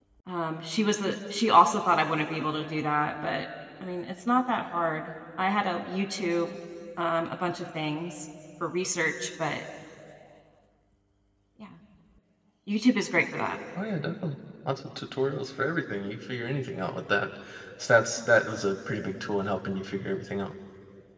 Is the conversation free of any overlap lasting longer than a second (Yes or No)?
Yes